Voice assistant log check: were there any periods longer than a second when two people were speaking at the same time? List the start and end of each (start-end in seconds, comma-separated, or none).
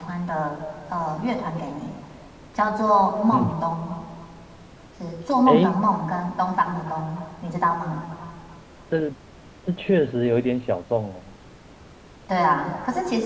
none